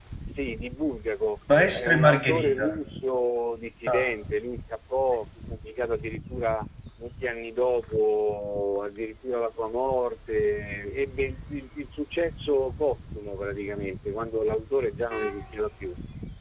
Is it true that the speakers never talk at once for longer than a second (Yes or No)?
No